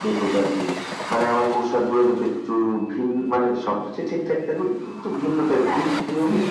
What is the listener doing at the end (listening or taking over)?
listening